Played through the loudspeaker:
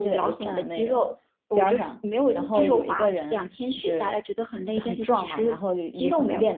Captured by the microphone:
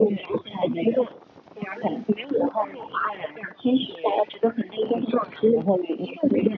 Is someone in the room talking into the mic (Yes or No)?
No